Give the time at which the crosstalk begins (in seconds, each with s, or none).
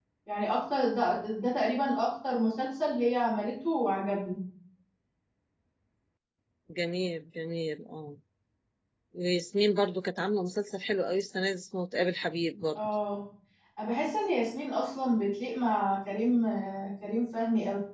none